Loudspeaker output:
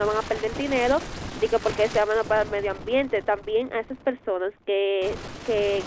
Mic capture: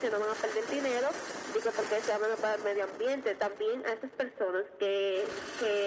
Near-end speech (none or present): none